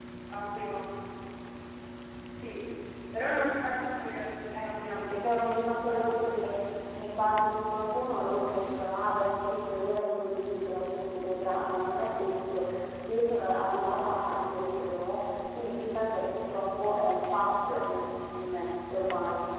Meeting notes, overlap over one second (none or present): present